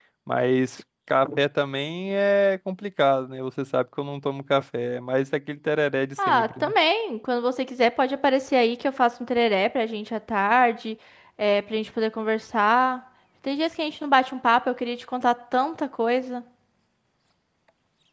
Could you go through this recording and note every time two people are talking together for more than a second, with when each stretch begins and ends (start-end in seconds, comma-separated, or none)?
none